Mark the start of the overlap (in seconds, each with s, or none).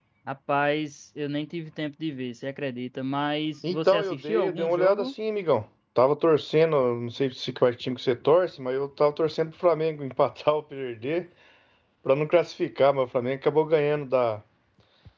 3.6 s